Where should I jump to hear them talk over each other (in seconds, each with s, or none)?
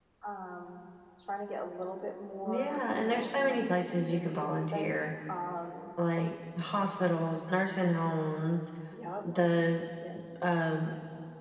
2.4 s